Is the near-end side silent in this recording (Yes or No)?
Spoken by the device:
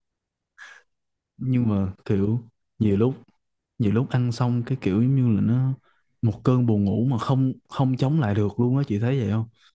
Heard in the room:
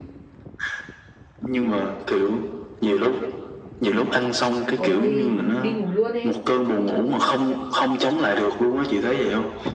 No